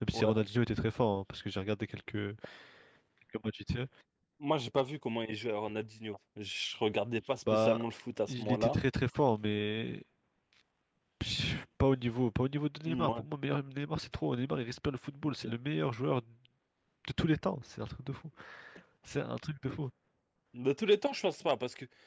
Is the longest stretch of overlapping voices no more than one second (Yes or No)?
Yes